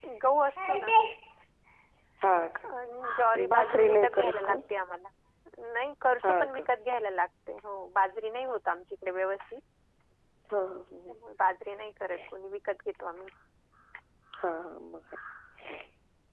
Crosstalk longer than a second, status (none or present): present